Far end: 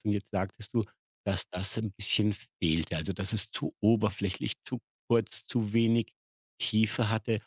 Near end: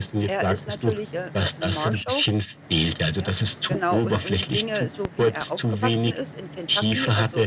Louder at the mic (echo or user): echo